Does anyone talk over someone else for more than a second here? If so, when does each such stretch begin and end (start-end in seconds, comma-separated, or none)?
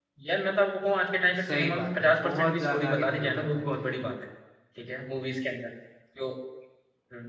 1.5-4.1